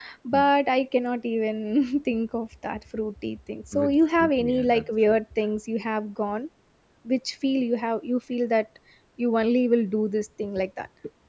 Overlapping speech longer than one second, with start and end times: 3.7-5.2

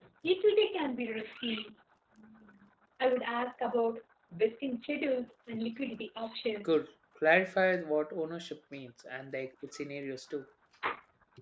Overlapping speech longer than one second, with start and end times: none

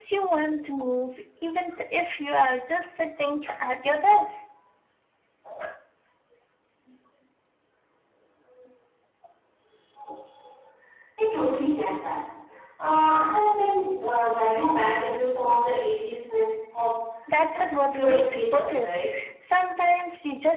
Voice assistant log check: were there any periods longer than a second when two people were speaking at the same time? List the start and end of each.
17.5-18.9

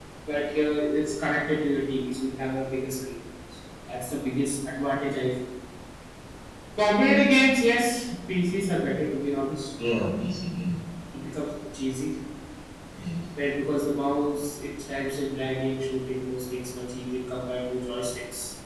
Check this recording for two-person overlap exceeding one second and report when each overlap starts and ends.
none

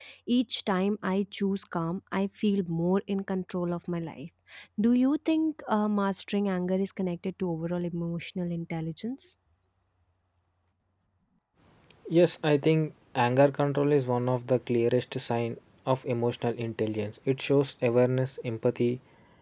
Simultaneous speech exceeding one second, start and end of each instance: none

